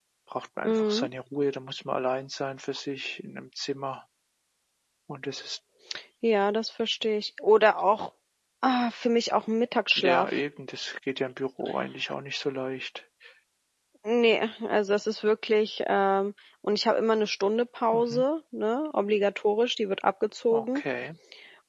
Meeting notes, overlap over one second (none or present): none